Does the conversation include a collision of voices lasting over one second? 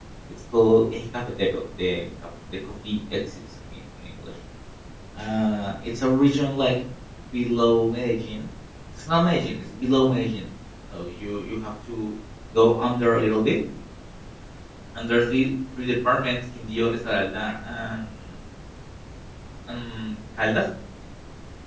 No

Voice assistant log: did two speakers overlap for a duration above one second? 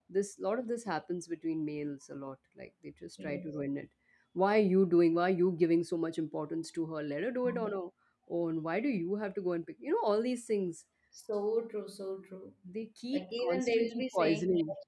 Yes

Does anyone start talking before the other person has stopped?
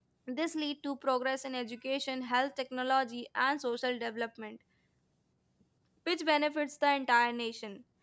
No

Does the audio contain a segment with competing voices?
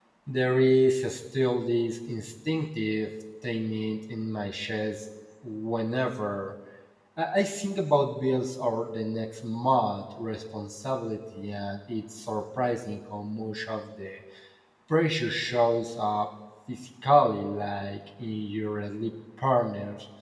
No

